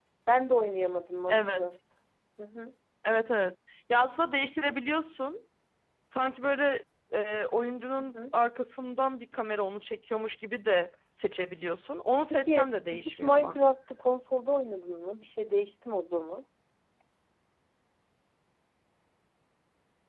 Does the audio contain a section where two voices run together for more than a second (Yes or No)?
Yes